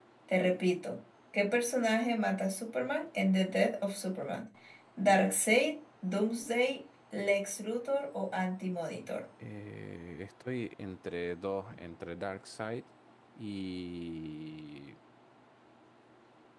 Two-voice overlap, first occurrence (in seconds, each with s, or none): none